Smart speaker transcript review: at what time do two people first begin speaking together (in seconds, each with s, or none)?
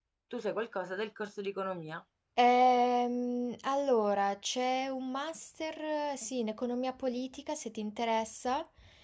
none